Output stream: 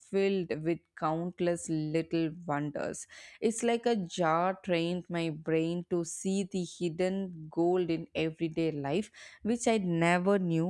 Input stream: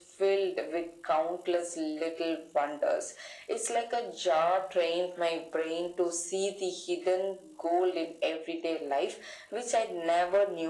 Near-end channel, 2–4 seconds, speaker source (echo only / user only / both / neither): echo only